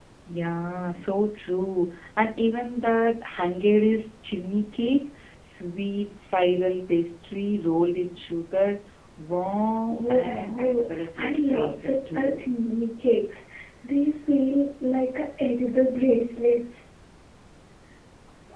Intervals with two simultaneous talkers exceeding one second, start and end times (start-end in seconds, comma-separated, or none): 9.9-12.4